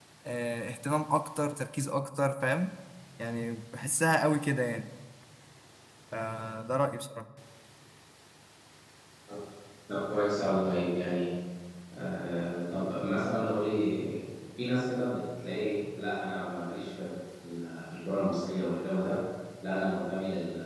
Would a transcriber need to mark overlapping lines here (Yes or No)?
No